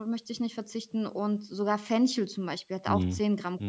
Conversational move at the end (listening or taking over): listening